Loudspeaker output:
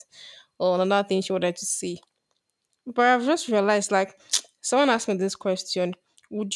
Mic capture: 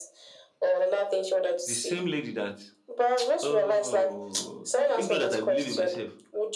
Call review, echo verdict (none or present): present